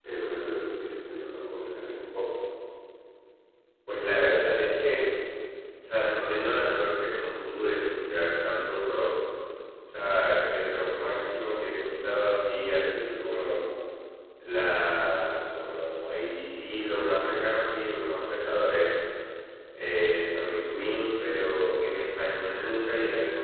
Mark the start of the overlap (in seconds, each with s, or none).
none